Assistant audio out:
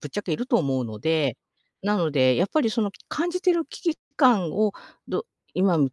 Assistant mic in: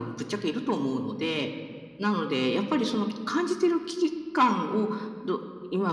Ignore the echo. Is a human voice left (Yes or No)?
No